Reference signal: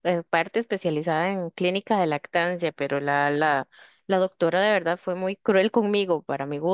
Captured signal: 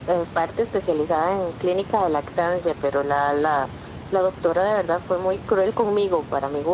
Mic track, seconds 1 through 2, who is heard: echo only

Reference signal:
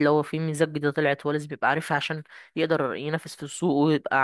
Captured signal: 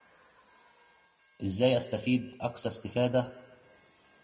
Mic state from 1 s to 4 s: user only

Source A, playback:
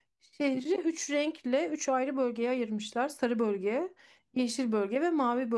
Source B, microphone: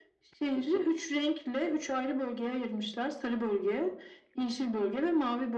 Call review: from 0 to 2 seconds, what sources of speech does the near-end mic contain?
echo only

